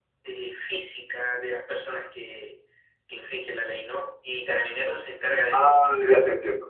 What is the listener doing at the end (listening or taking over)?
taking over